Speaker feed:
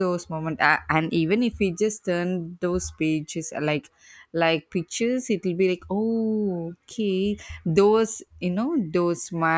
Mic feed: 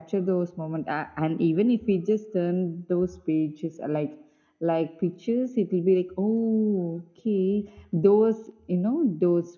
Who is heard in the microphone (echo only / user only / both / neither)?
echo only